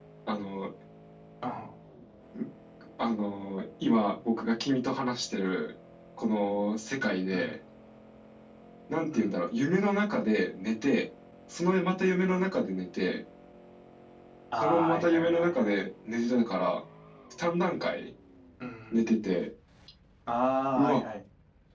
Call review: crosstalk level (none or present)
present